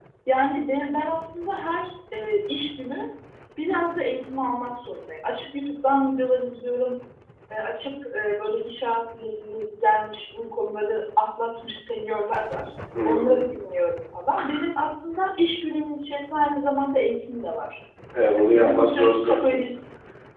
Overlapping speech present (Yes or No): Yes